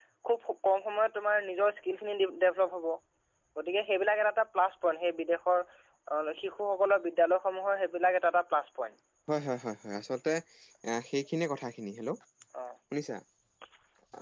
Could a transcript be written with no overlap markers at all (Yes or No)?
Yes